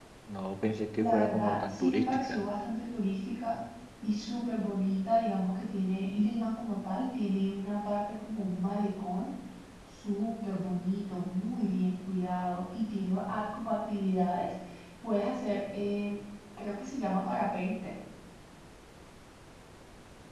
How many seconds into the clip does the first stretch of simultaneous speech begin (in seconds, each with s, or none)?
0.9 s